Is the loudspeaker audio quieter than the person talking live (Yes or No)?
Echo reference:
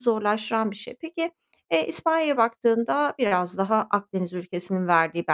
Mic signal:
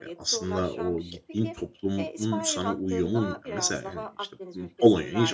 Yes